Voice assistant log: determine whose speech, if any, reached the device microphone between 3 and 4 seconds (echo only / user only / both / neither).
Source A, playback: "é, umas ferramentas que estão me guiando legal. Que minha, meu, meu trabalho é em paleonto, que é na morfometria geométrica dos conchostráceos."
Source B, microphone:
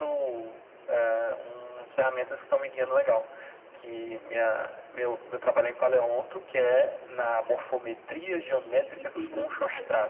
echo only